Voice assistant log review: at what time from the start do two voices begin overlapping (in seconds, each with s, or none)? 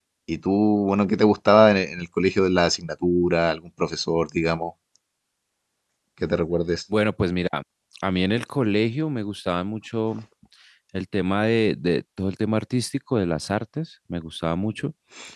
none